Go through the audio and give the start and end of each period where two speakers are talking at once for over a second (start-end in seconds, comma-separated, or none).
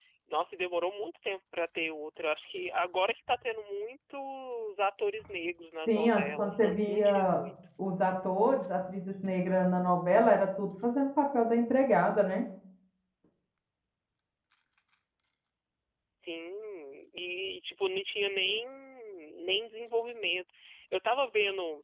5.9-7.4